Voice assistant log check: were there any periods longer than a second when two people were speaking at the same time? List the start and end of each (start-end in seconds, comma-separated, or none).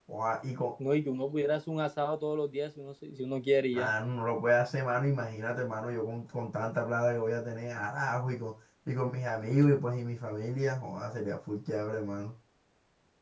none